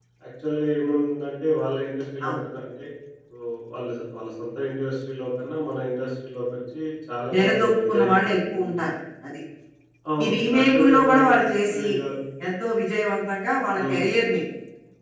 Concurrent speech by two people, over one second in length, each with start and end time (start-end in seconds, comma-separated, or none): 7.3-8.7, 10.2-11.9